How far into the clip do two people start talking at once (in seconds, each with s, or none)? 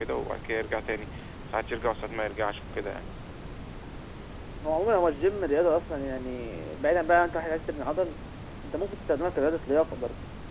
none